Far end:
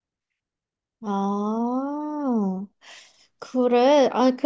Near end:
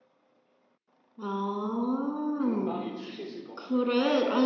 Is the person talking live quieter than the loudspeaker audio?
Yes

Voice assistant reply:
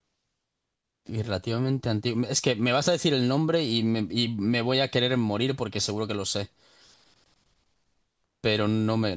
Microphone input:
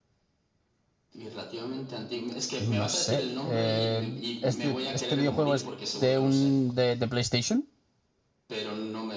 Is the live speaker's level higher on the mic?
Yes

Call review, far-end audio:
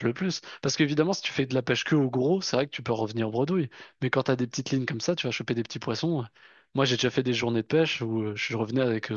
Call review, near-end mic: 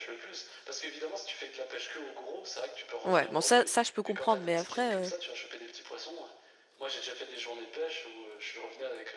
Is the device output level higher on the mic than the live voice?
No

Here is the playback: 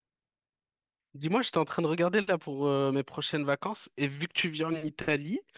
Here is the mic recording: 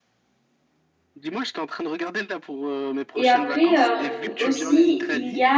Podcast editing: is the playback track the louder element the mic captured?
No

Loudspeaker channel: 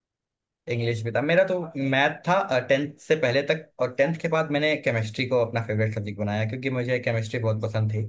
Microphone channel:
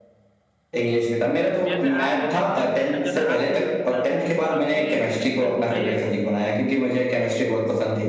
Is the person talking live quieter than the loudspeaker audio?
Yes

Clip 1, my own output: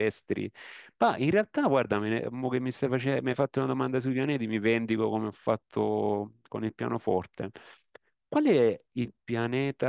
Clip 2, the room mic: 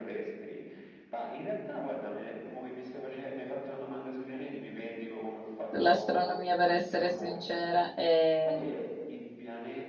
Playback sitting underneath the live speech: Yes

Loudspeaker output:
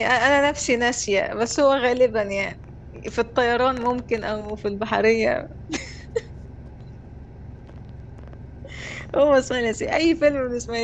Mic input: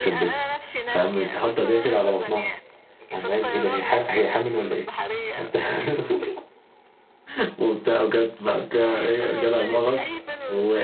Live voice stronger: Yes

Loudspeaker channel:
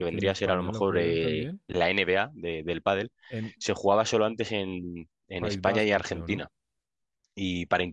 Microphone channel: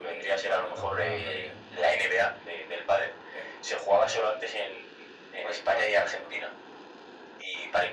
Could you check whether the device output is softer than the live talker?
No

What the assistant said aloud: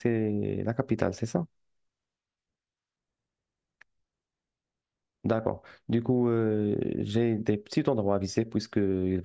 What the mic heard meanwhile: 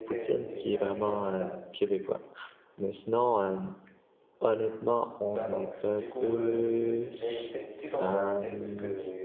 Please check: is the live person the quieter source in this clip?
No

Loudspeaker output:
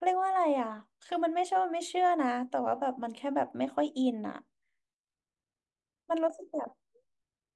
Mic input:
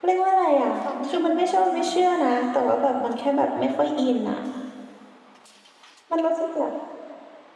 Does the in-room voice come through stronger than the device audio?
No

